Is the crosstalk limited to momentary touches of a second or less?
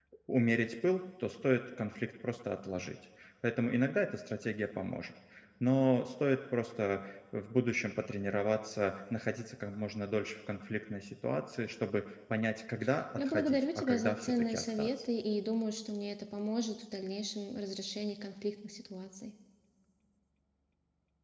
No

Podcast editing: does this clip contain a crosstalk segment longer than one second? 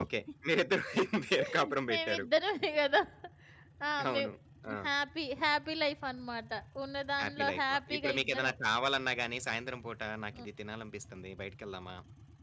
Yes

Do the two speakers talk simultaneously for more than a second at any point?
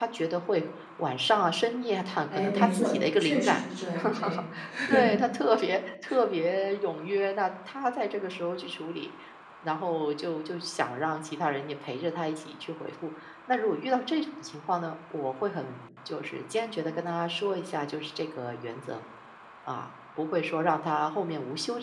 Yes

